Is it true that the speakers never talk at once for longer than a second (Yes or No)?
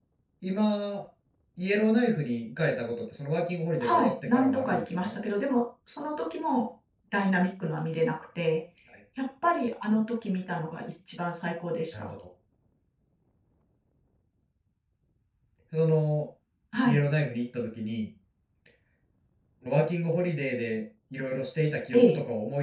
No